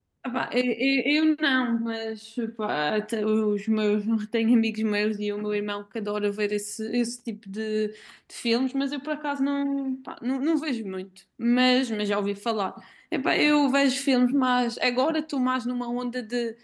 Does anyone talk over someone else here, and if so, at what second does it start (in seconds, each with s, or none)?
none